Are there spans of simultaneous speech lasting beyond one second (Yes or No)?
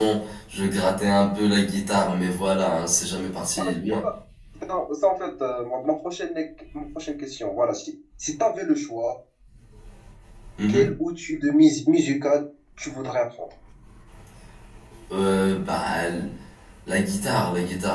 No